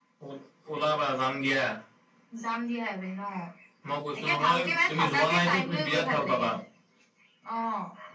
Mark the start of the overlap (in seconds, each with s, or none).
4.2 s